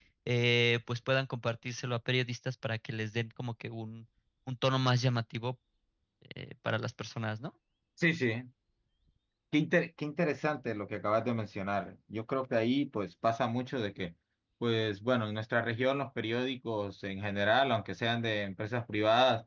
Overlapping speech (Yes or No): No